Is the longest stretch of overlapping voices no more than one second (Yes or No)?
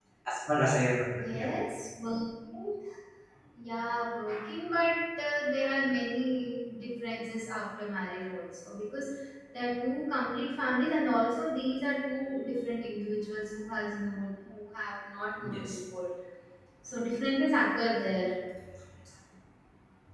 Yes